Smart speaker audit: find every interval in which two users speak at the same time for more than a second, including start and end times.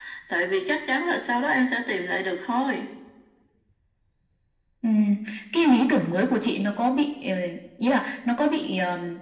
none

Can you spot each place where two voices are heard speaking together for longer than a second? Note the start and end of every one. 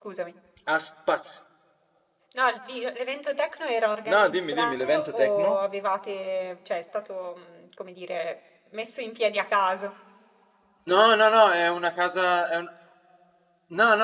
4.1-5.6

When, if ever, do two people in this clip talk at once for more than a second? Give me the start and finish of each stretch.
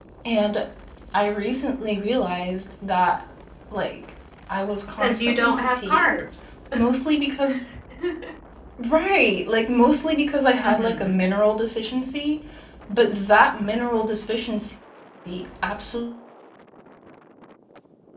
5.0-6.2

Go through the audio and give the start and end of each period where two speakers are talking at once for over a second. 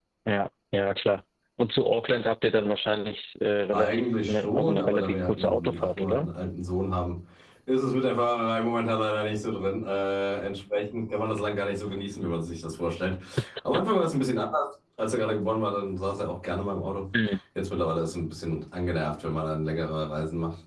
3.7-6.3

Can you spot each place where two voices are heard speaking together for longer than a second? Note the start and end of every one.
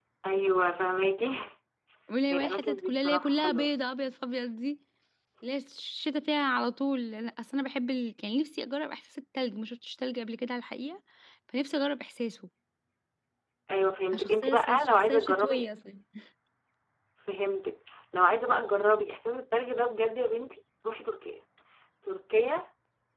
2.3-3.7, 14.1-15.7

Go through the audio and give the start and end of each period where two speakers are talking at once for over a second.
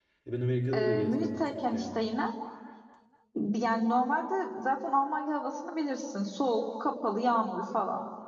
0.7-1.9

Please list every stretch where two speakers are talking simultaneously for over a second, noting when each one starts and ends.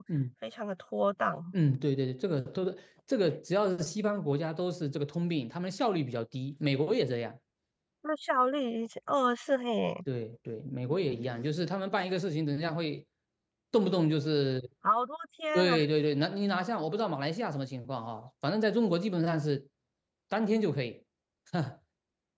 none

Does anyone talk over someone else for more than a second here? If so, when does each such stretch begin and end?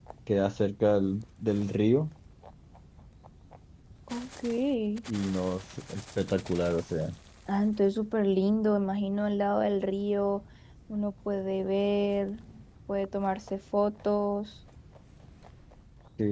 none

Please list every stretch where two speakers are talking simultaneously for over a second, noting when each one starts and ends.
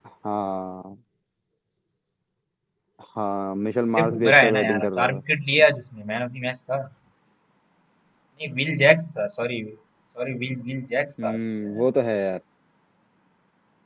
4.0-5.2

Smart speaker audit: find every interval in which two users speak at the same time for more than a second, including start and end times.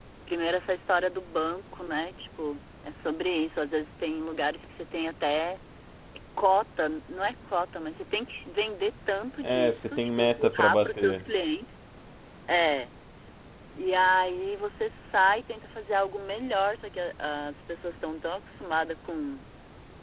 9.4-11.2

